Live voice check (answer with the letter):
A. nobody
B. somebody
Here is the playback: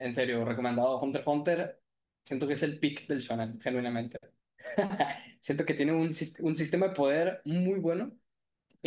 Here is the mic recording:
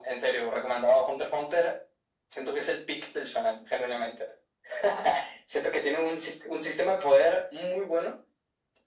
A